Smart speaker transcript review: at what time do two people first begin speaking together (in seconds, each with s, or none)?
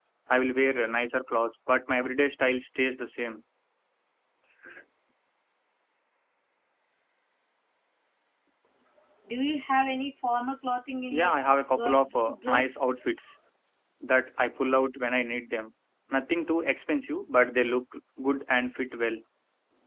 11.1 s